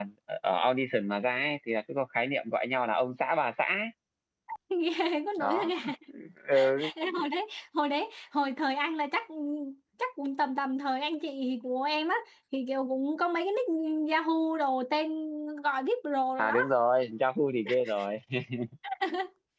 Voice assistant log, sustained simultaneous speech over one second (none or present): none